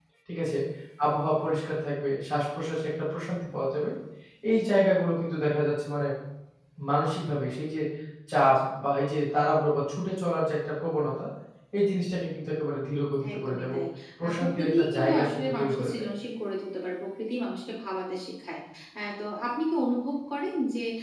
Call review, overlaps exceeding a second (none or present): present